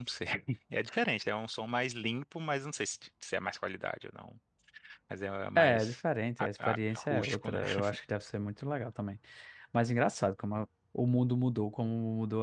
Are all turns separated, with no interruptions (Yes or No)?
No